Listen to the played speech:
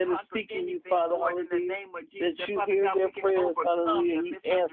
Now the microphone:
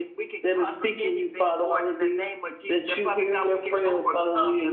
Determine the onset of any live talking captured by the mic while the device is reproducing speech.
none

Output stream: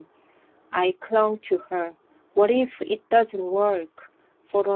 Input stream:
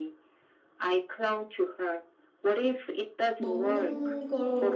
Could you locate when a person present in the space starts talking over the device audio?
3.4 s

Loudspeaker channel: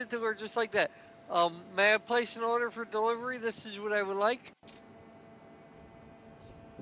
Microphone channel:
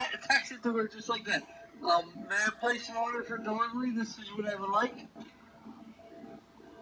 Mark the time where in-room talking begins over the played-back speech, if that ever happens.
none

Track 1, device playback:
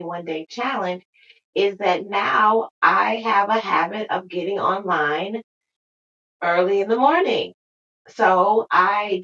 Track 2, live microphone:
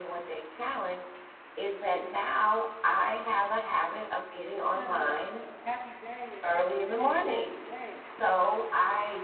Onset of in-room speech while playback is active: 4.7 s

